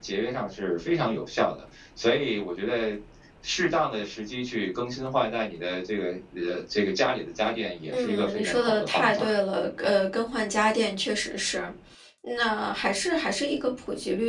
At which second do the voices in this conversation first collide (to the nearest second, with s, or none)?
8 s